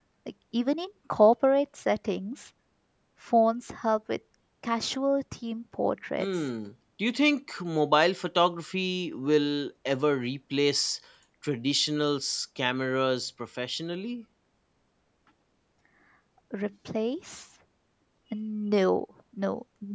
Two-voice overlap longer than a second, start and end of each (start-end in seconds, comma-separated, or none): none